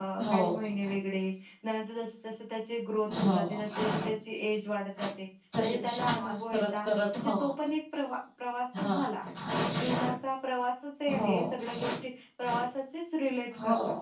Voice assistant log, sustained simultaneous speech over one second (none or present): present